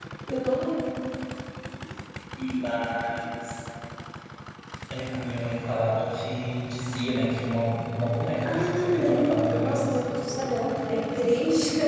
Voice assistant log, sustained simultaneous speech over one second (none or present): present